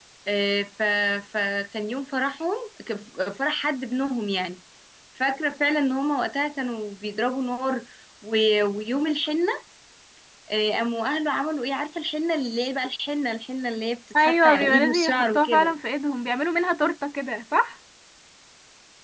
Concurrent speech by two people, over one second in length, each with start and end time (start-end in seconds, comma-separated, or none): 14.2-15.7